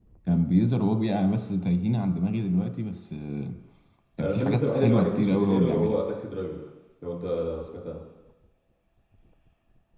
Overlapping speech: Yes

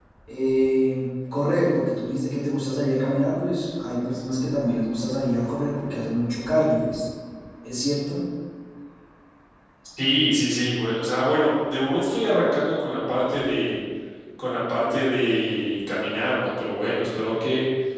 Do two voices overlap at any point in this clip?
No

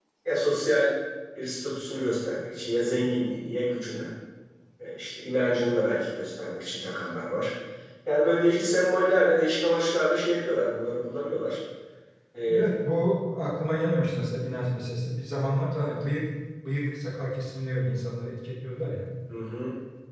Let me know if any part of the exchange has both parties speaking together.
No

